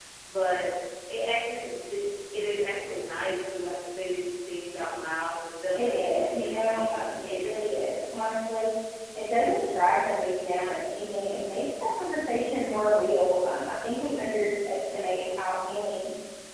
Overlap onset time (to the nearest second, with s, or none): 6 s